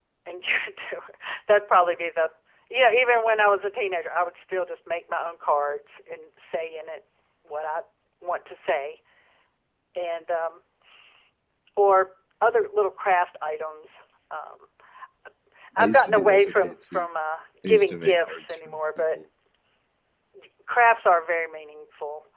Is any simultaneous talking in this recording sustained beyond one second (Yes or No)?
Yes